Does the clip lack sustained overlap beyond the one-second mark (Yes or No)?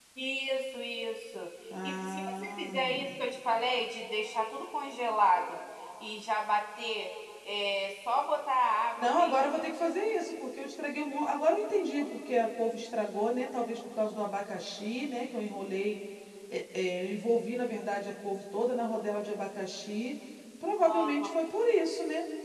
No